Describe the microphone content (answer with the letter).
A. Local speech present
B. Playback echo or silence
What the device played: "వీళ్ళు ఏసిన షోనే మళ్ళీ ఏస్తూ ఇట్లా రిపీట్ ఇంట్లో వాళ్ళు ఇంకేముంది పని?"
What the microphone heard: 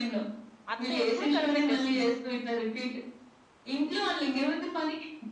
A